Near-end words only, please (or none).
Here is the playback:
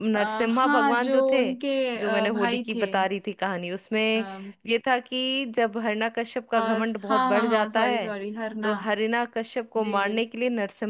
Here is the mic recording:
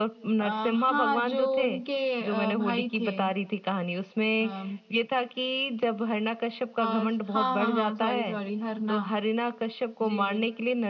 none